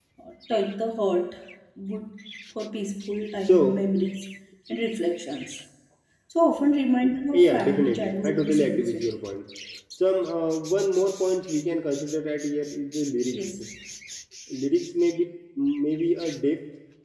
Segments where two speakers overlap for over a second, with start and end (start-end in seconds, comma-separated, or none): 7.3-9.2